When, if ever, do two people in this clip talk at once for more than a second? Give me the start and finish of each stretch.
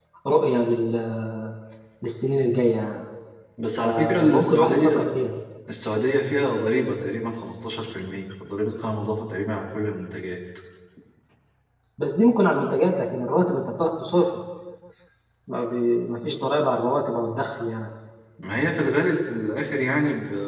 3.8-5.1

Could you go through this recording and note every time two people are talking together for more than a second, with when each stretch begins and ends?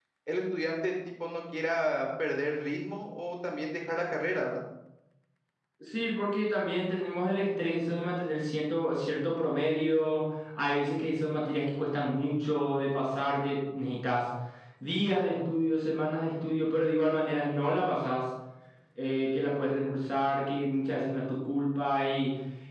none

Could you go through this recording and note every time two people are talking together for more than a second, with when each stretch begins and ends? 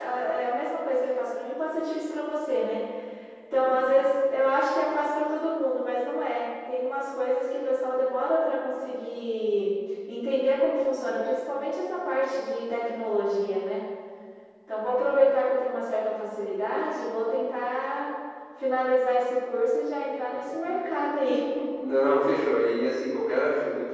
none

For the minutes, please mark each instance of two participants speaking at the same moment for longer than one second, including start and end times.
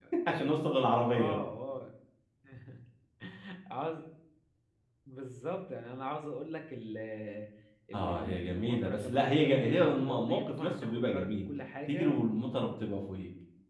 7.9-11.5

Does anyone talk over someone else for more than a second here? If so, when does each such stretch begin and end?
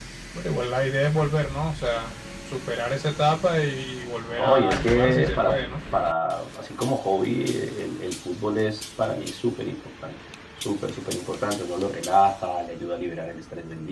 4.4-5.6

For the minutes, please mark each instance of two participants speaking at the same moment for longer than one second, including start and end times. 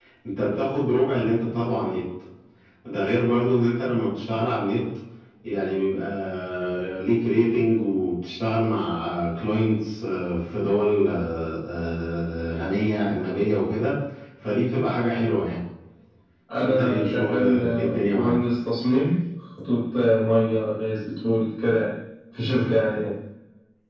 16.6-18.4

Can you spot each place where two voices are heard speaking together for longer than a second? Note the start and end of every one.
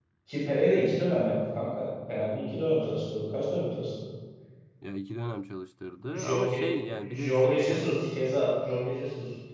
6.1-7.9

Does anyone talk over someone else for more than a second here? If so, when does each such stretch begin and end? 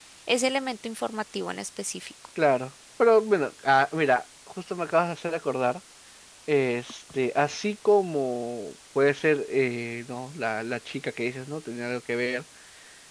none

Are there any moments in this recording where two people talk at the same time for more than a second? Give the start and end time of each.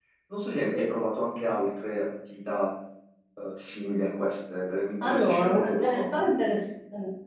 5.0-6.2

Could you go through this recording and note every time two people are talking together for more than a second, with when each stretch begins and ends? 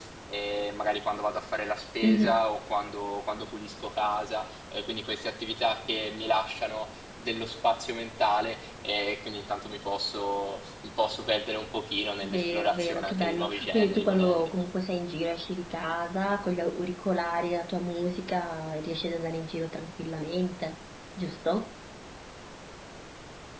12.2-14.5

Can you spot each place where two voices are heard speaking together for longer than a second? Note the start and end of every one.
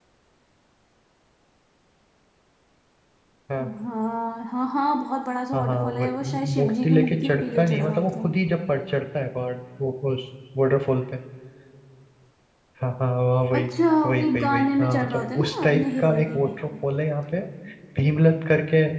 5.5-8.3, 14.0-16.7

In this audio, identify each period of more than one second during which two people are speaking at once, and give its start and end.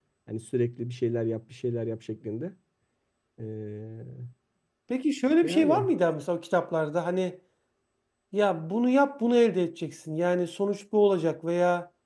none

